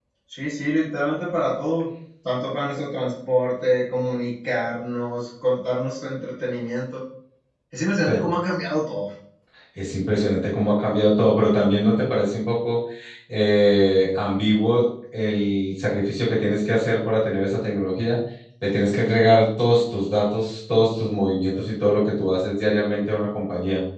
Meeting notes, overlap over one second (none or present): none